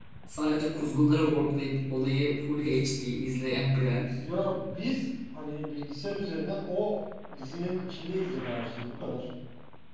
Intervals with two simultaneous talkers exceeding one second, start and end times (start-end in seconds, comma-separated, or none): none